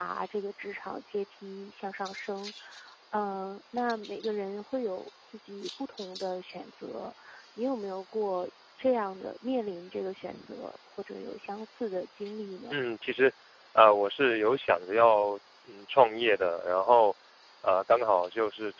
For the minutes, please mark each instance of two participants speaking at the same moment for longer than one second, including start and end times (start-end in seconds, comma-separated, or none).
none